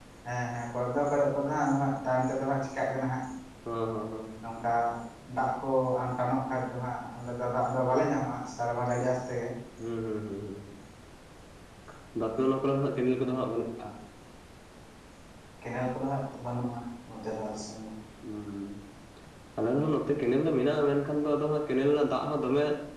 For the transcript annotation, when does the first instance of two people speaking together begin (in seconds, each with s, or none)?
none